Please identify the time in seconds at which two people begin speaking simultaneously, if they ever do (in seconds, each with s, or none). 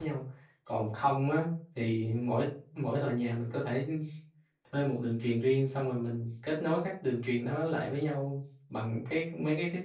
none